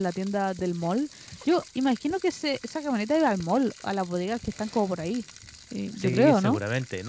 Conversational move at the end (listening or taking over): taking over